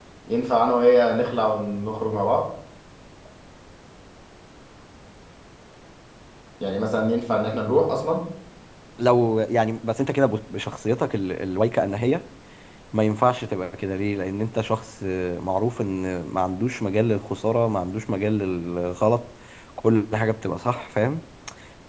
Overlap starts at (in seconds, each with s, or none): none